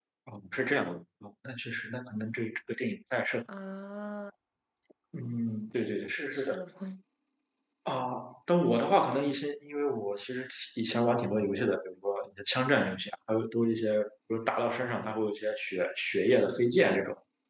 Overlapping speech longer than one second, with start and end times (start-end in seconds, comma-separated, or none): none